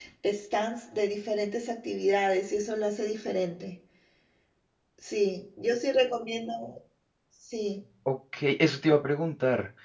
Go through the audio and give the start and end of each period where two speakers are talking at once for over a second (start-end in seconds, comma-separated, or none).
none